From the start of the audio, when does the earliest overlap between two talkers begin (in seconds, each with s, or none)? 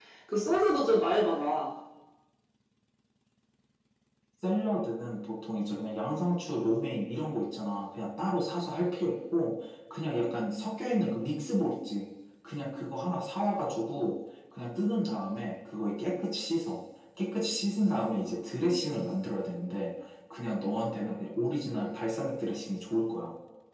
none